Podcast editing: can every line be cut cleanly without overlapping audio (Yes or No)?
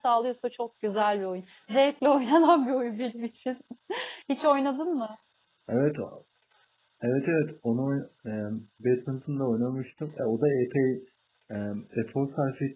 Yes